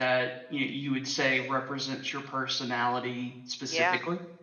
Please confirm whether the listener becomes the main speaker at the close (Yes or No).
Yes